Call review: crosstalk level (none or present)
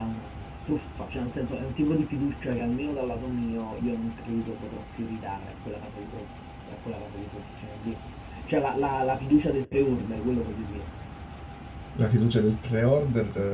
none